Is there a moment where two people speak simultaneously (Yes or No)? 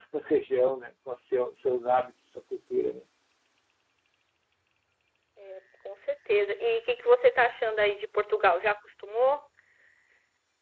No